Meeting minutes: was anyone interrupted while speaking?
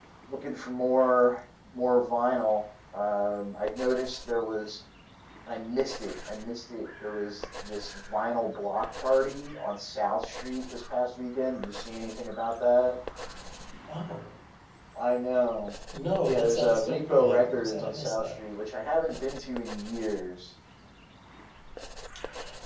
Yes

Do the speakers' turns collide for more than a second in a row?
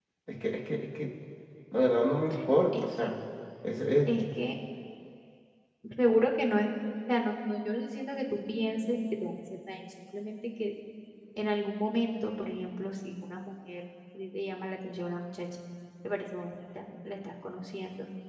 No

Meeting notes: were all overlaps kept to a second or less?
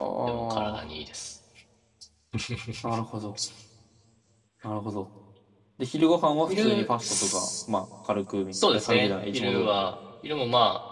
No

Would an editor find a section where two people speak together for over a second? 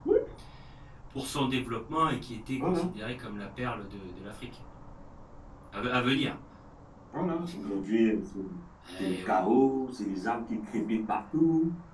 No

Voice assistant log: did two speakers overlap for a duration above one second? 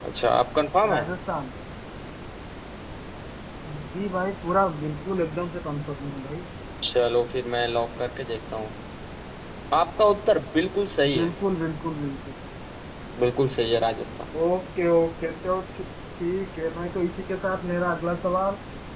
No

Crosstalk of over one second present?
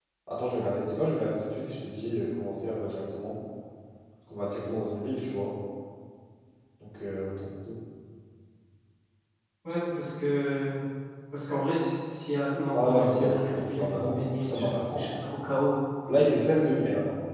Yes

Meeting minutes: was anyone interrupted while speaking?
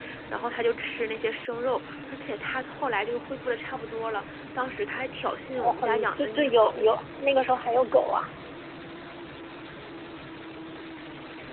Yes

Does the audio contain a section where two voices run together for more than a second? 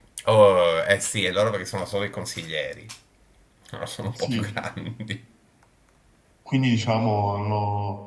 No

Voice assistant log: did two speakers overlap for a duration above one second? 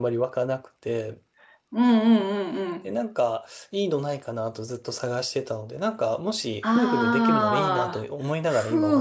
Yes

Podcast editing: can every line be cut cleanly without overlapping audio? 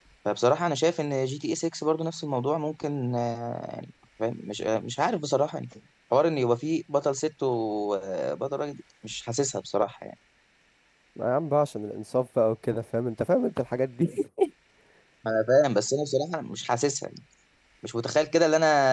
Yes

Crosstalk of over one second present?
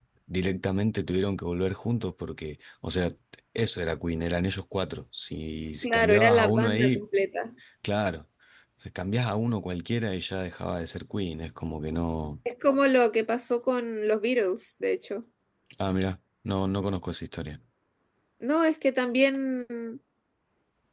Yes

